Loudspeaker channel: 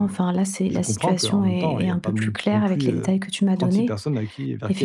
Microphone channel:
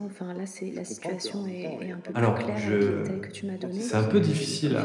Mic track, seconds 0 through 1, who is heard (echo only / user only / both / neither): echo only